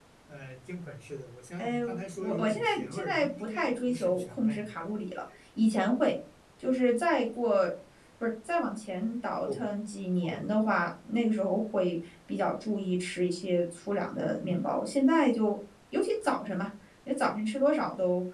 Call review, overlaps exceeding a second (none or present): present